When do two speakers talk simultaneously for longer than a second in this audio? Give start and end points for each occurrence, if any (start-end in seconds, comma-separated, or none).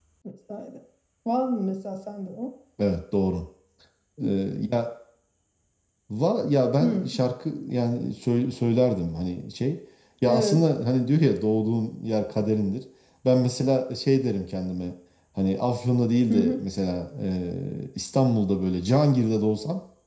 none